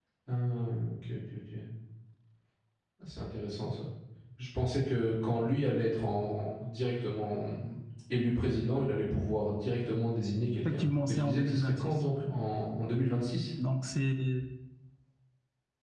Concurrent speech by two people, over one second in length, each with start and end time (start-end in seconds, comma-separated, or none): 10.7-12.0